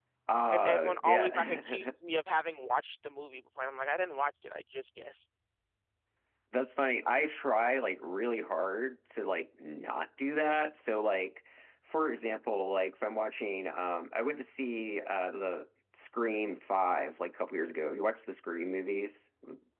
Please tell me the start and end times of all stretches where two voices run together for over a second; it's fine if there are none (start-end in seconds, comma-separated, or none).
0.5-1.9